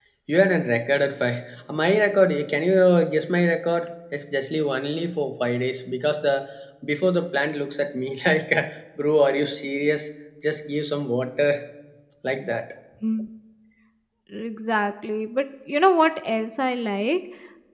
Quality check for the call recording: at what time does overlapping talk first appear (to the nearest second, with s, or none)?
none